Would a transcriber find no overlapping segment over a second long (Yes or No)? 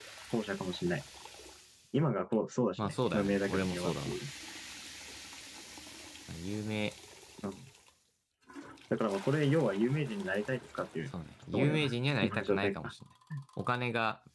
No